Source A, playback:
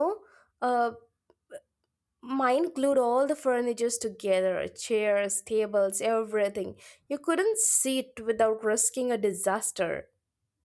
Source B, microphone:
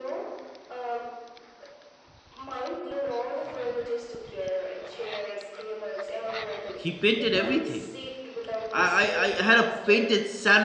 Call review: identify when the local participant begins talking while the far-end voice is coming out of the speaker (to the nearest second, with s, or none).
7 s